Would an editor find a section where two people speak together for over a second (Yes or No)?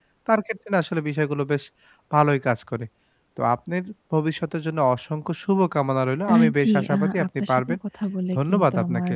Yes